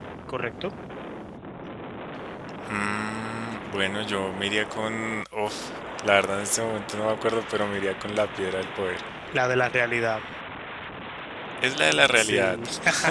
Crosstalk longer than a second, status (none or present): none